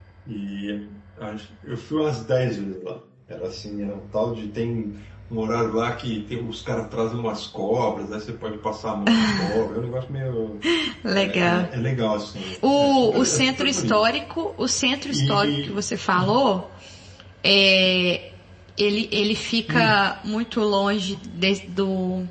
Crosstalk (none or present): present